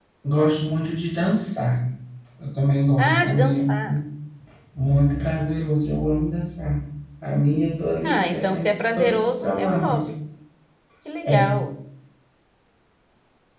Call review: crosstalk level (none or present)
present